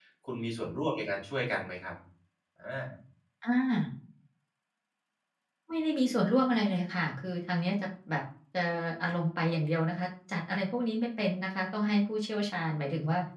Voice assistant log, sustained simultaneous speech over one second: none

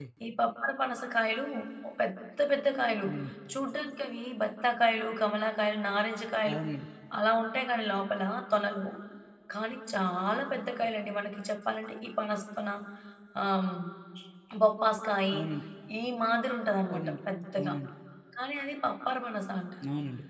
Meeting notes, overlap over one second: none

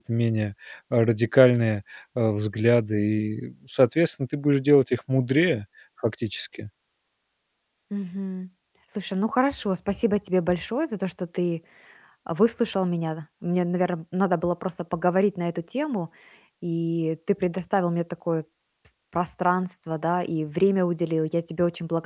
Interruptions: none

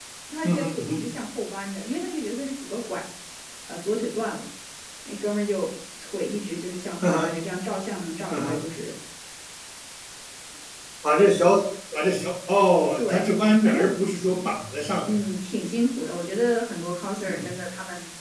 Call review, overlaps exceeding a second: none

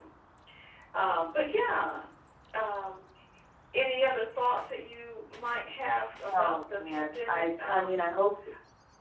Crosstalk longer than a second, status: present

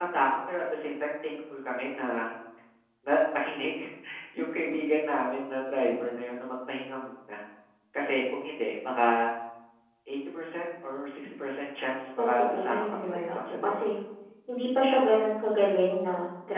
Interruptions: present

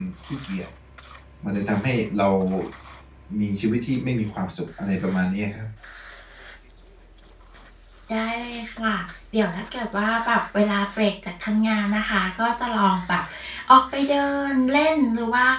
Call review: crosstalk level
none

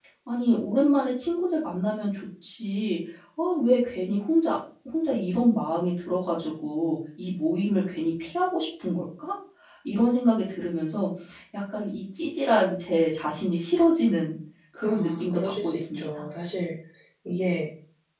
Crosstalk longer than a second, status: present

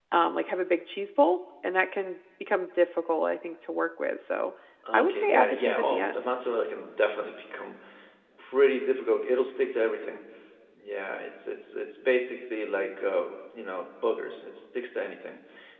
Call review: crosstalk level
present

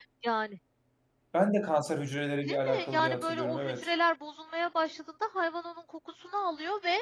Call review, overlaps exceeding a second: present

